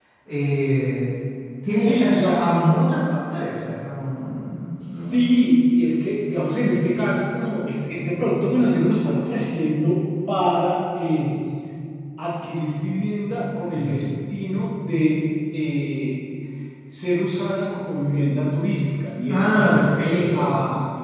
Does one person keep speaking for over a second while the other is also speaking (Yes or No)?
Yes